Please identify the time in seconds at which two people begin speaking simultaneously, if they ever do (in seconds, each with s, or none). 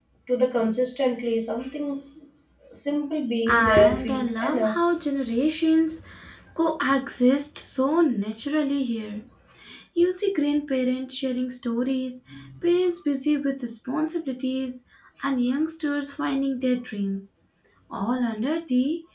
3.5 s